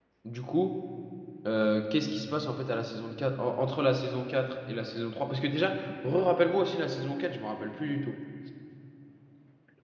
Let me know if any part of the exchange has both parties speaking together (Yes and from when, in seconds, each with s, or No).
No